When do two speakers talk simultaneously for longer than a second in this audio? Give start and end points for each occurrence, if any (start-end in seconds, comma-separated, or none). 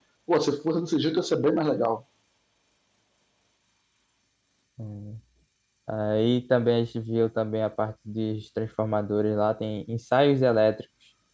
none